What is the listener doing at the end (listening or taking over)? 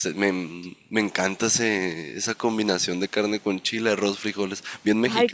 taking over